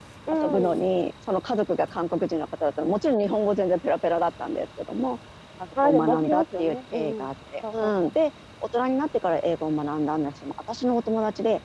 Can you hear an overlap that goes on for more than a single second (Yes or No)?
Yes